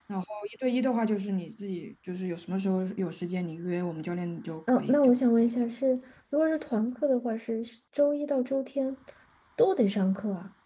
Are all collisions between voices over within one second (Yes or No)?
Yes